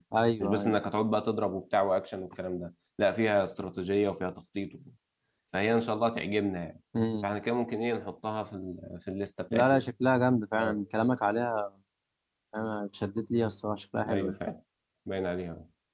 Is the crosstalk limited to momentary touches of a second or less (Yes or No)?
Yes